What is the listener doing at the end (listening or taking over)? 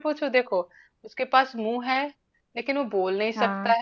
listening